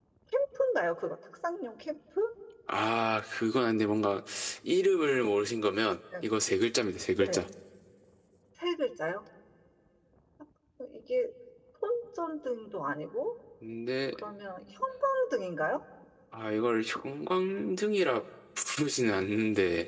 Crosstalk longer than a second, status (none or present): none